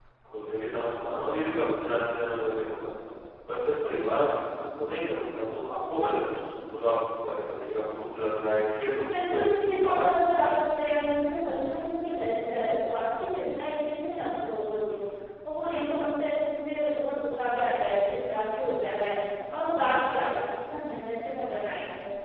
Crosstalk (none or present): present